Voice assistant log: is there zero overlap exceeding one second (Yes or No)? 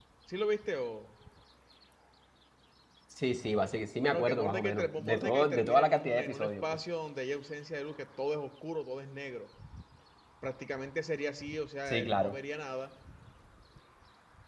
No